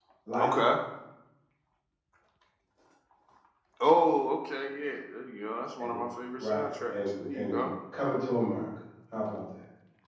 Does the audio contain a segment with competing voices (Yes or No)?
Yes